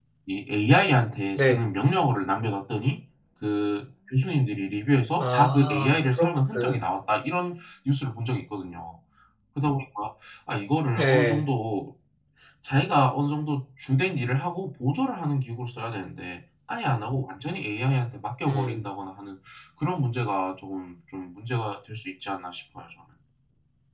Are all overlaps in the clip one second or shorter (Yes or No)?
No